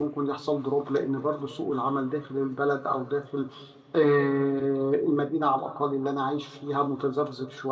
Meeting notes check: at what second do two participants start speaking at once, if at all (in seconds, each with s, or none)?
none